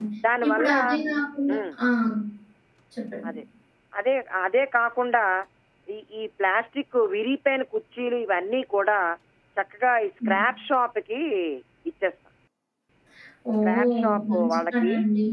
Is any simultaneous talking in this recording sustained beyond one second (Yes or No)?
Yes